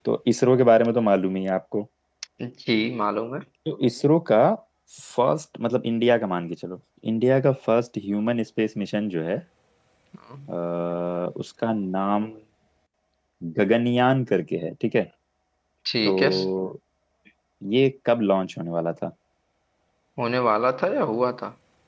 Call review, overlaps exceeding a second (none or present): none